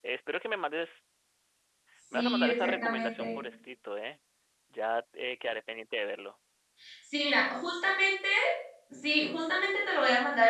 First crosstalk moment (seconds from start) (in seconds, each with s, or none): 2.1 s